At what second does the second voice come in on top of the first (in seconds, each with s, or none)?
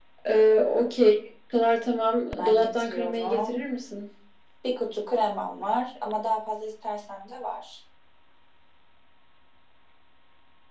2.3 s